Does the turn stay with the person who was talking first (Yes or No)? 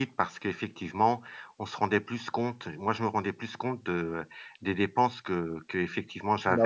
Yes